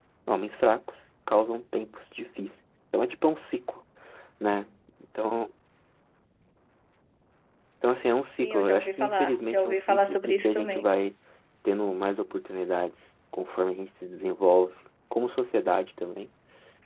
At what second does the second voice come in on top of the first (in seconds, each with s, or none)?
8.4 s